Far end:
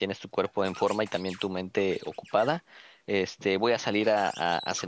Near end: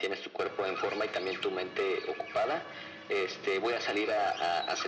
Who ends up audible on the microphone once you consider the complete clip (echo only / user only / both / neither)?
echo only